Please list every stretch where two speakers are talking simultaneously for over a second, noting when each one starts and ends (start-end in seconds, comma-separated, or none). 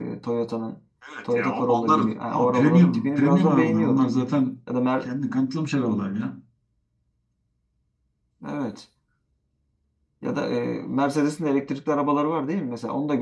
1.3-4.0